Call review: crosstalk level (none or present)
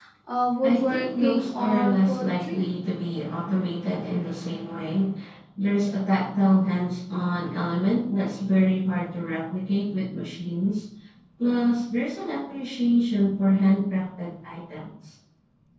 present